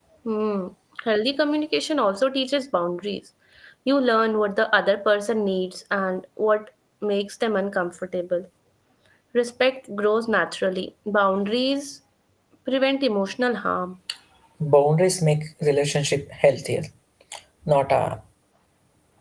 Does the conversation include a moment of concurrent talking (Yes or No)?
No